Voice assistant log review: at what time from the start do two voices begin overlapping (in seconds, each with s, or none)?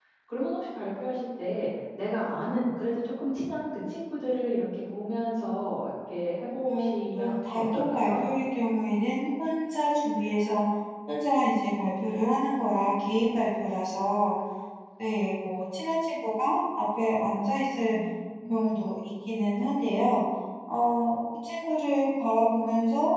6.7 s